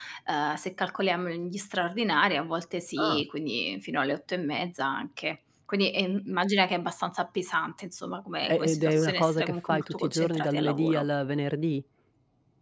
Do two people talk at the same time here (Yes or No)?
Yes